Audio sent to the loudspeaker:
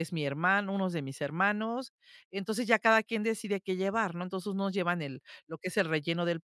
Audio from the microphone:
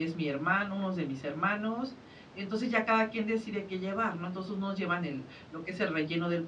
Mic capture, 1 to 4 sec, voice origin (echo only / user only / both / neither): echo only